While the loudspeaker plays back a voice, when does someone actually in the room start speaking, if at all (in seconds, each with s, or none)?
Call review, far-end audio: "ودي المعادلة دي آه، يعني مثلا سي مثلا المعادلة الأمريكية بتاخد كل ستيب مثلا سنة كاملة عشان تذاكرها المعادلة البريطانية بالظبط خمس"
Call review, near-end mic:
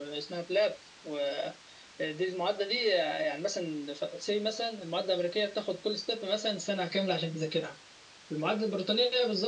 none